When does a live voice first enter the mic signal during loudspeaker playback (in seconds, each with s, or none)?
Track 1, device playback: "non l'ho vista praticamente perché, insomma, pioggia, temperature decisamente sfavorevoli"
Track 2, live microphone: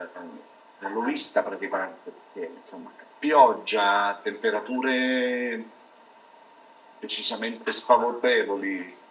none